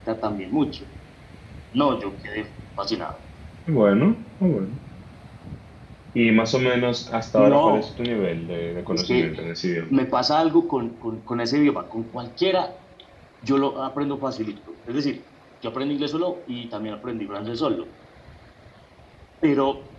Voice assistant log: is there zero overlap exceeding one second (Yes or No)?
Yes